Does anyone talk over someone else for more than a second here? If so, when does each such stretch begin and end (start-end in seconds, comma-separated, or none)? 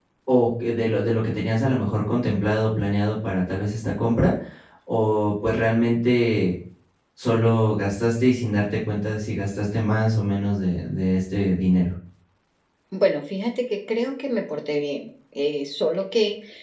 none